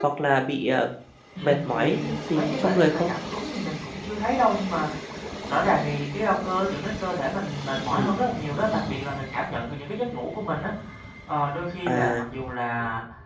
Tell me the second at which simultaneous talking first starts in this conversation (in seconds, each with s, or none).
1.4 s